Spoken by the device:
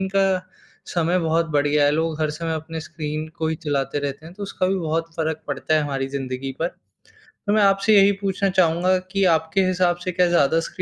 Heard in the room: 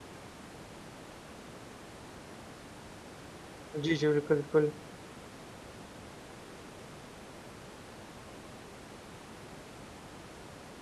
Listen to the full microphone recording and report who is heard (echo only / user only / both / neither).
user only